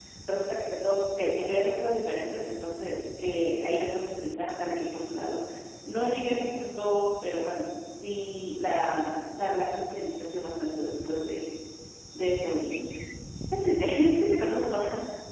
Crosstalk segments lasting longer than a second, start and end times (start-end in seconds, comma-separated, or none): none